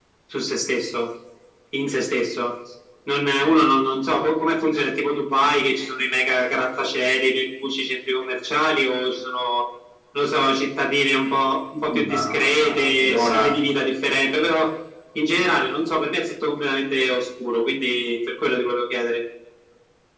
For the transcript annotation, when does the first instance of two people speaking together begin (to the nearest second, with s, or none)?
12 s